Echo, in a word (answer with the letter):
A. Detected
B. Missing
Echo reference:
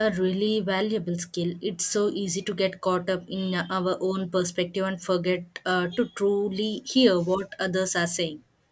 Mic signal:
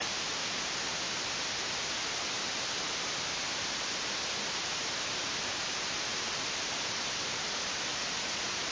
B